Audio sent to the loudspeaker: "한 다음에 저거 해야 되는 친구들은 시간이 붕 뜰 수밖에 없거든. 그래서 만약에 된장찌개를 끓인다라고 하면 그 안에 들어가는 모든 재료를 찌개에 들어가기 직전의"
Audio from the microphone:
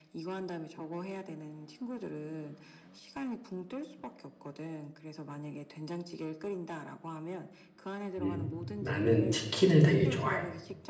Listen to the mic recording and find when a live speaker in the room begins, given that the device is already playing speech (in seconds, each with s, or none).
8.2 s